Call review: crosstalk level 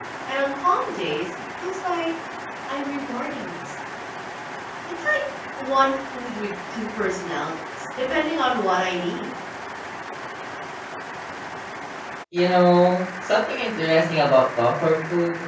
none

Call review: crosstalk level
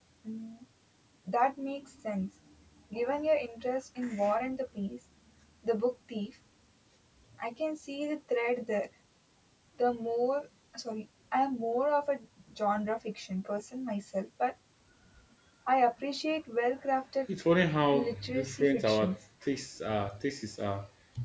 present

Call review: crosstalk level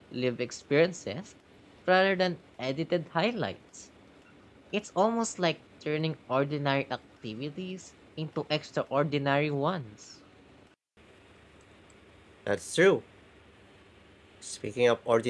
none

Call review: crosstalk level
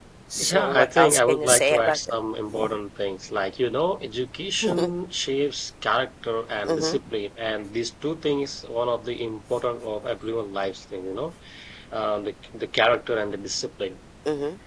present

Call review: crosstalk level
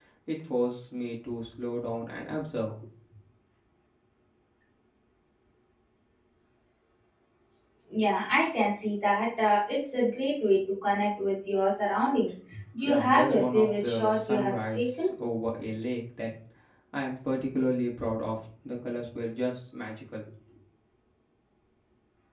present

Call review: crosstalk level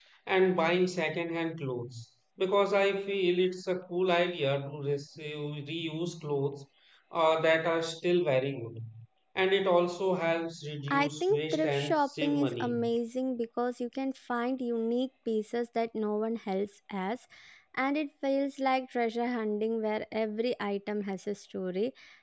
present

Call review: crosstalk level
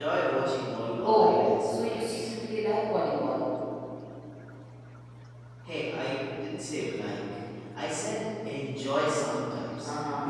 present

